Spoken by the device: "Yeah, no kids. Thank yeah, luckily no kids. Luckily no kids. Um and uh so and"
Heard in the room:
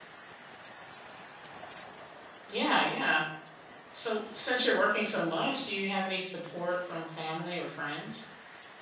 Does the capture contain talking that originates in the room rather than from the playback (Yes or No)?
Yes